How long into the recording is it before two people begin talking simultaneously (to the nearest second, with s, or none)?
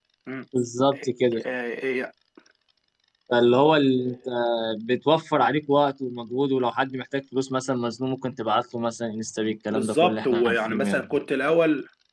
10 s